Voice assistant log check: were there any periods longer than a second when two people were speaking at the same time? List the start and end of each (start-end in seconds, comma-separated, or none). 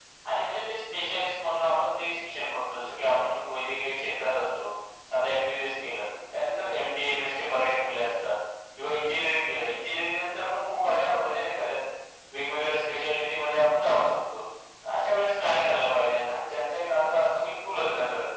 none